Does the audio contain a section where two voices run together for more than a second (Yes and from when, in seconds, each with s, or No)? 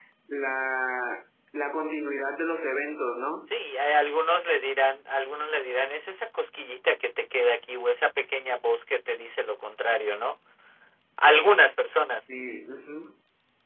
No